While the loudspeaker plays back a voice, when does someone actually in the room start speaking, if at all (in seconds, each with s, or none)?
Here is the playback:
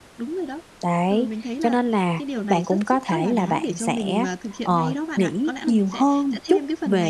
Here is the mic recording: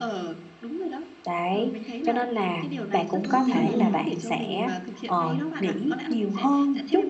3.2 s